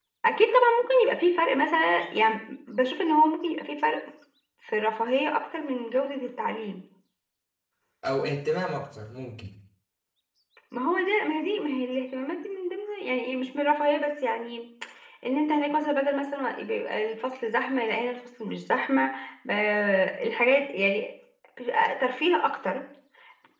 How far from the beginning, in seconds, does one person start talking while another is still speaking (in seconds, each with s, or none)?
none